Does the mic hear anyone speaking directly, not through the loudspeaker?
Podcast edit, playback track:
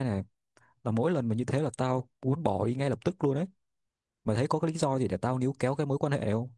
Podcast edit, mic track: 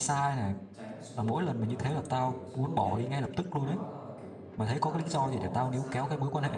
Yes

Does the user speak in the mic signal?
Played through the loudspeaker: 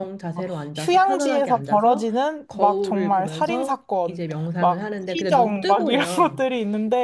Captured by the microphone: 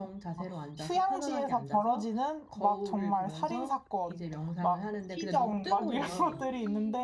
Yes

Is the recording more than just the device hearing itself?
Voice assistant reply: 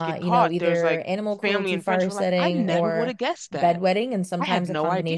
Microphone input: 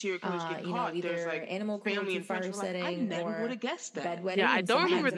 Yes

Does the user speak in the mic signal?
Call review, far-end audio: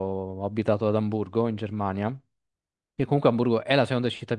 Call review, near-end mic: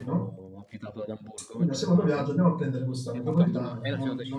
Yes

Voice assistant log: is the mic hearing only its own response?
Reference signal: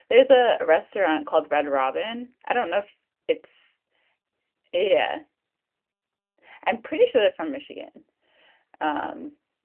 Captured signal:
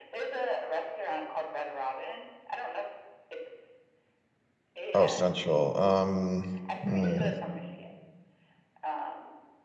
No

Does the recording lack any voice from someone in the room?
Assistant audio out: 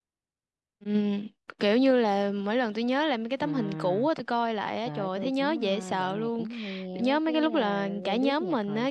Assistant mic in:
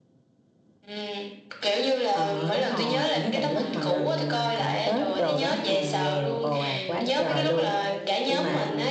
No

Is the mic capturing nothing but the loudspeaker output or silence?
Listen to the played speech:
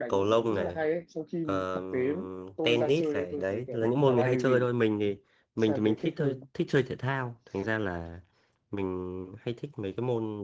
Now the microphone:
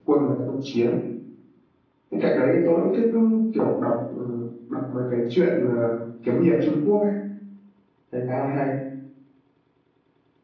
No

